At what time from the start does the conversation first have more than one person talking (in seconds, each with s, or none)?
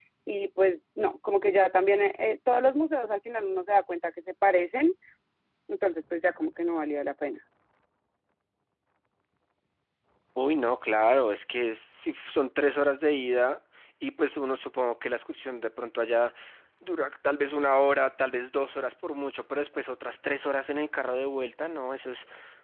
none